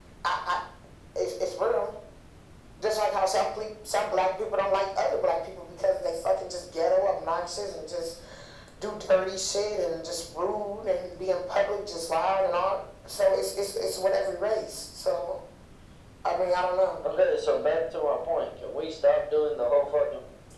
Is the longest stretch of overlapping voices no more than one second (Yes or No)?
Yes